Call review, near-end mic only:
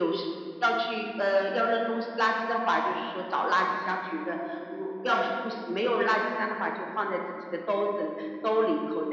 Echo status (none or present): present